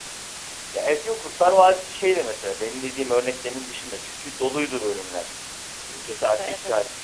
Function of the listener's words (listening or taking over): listening